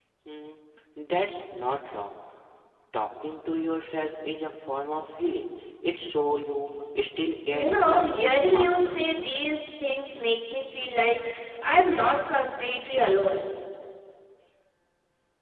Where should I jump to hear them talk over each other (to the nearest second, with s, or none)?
7 s